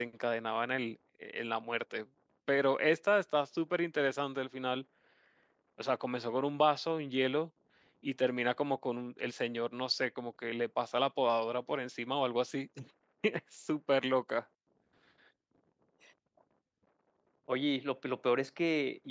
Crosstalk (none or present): none